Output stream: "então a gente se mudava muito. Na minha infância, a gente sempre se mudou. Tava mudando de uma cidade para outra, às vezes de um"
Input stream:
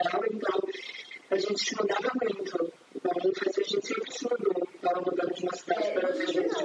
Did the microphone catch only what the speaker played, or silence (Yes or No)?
No